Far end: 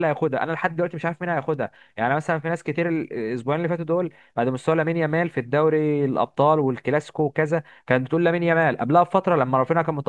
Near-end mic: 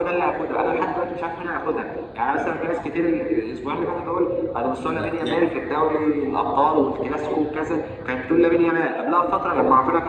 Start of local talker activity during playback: 4.8 s

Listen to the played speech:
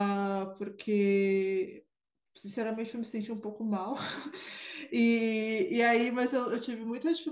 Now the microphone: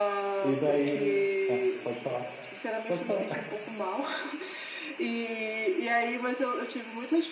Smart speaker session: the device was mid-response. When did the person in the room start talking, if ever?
0.4 s

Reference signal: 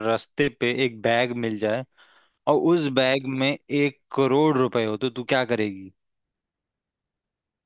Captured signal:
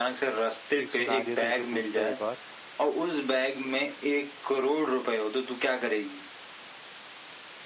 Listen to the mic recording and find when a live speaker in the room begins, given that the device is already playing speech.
0.8 s

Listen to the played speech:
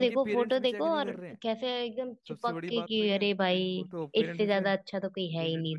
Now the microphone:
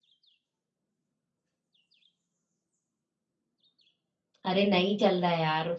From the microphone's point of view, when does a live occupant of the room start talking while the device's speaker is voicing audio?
4.5 s

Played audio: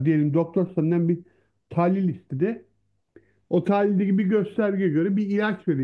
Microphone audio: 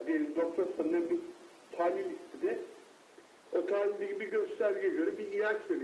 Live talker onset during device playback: none

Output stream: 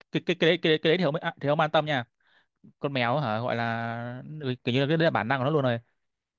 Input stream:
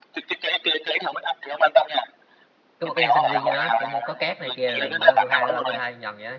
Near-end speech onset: 2.8 s

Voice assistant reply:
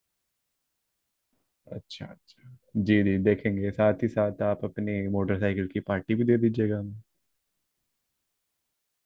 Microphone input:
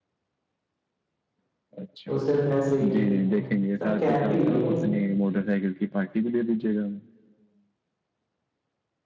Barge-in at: 2.1 s

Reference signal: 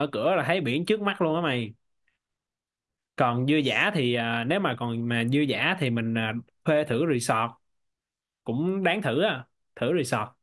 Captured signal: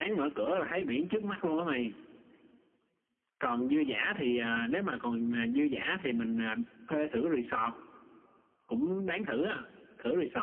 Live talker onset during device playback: none

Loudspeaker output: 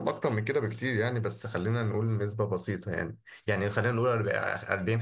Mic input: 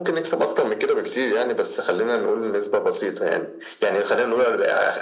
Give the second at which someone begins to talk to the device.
none

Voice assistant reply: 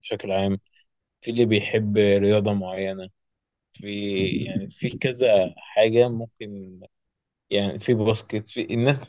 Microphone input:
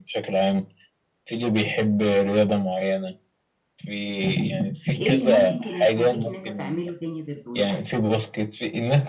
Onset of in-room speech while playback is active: 5.0 s

